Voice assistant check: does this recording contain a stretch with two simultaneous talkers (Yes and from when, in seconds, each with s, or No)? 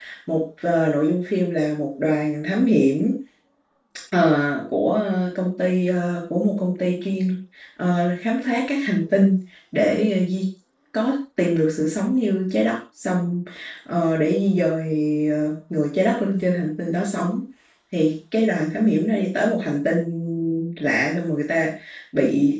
No